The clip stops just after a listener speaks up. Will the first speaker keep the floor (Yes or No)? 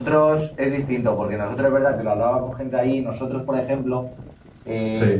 Yes